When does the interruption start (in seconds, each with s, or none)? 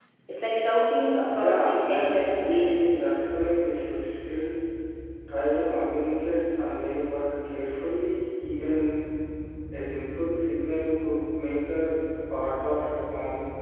1.4 s